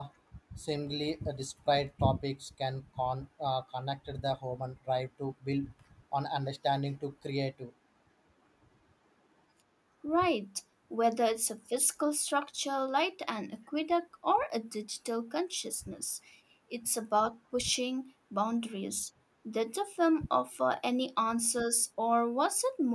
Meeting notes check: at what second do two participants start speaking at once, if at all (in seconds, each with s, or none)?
none